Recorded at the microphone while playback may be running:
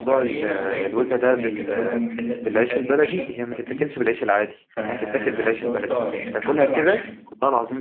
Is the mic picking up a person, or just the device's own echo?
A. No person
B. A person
B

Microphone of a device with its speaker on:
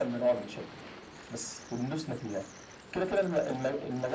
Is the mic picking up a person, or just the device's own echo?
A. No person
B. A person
A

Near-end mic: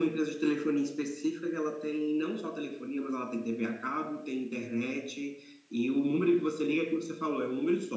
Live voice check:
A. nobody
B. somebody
A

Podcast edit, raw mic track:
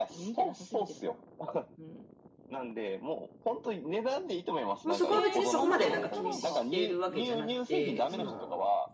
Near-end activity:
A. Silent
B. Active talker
B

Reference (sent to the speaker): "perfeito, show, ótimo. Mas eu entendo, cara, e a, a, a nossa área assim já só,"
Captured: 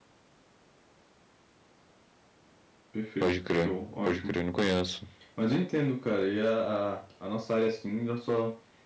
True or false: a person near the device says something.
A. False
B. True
B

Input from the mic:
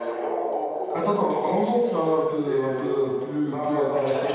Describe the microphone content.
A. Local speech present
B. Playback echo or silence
A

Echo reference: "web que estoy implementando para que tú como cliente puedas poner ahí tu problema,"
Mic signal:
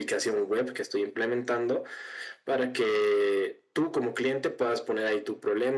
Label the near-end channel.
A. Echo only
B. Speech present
A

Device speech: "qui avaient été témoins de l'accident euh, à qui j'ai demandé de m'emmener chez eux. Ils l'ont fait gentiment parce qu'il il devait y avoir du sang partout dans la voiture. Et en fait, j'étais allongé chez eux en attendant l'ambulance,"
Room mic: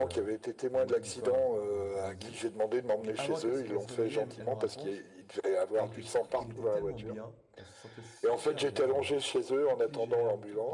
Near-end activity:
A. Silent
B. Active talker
B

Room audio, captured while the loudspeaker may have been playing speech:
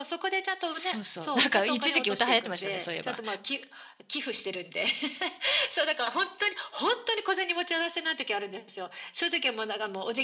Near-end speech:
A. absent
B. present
B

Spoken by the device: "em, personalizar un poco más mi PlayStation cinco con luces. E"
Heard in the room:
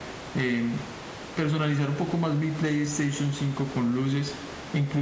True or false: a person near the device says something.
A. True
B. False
B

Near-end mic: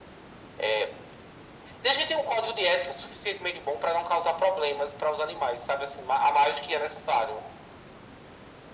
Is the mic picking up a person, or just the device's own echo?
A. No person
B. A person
A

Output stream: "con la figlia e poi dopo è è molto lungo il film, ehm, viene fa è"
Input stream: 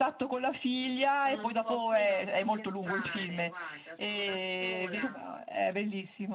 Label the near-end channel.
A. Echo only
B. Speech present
B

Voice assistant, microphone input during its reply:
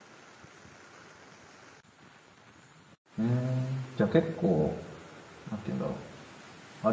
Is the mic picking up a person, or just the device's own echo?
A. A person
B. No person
A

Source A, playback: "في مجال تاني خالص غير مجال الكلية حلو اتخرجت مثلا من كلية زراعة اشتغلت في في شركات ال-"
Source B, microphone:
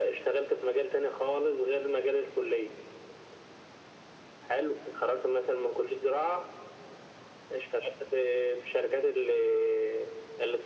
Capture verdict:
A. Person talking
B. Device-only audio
B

